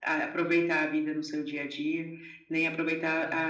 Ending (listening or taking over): listening